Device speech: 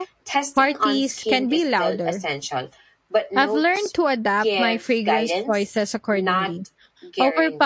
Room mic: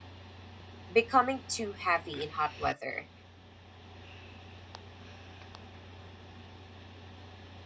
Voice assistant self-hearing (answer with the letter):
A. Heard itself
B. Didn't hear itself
B